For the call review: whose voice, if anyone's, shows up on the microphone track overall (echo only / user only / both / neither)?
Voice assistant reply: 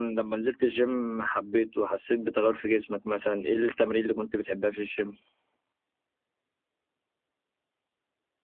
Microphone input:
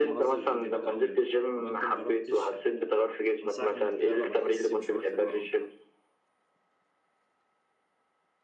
both